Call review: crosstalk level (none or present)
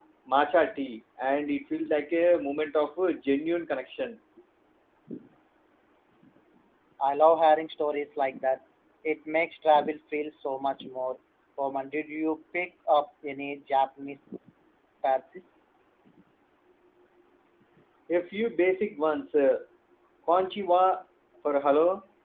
none